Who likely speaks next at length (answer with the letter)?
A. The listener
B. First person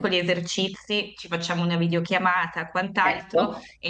B